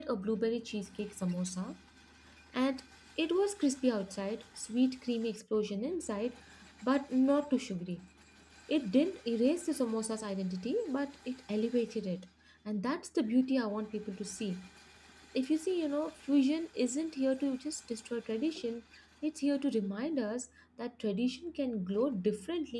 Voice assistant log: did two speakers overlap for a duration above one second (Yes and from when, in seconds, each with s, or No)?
No